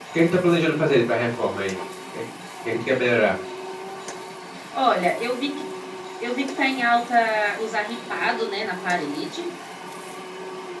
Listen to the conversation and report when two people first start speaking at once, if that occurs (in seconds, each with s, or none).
none